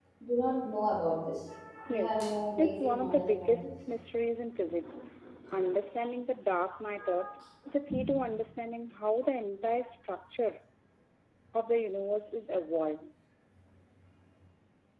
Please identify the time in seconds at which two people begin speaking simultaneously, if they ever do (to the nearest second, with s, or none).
2 s